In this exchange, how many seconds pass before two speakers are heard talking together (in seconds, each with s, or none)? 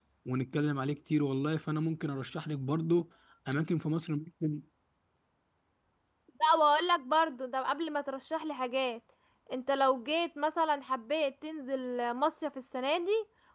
none